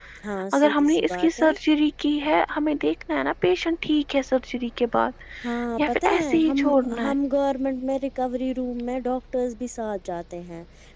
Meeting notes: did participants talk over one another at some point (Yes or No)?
Yes